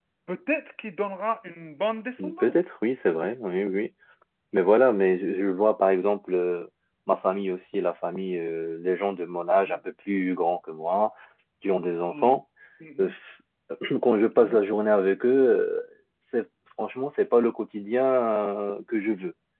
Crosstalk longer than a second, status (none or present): none